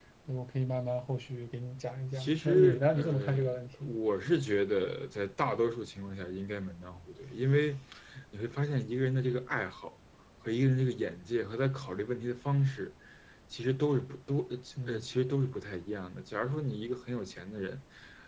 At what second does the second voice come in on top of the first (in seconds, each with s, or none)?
2.1 s